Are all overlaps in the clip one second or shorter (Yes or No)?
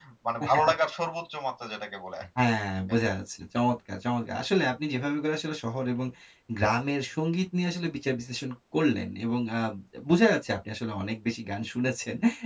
Yes